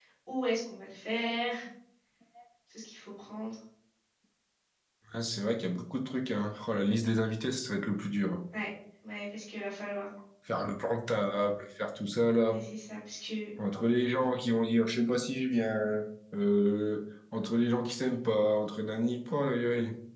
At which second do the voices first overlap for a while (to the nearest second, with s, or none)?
none